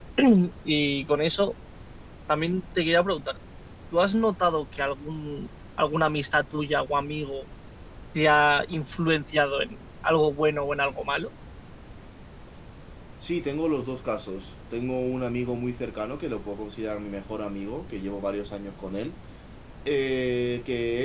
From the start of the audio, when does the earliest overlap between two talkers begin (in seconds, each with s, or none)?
none